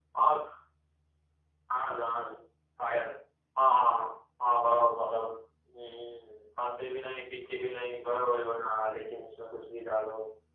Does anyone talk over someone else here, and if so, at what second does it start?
none

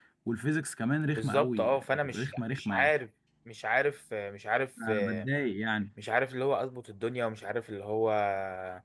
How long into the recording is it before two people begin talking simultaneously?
1.1 s

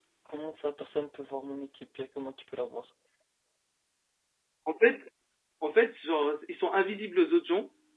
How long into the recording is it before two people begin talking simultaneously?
none

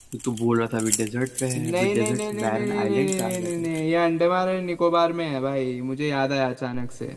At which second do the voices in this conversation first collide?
1.6 s

